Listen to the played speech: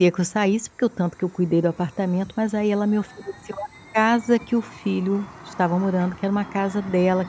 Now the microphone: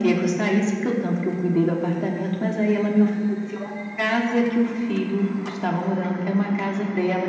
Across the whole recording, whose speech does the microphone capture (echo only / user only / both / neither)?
echo only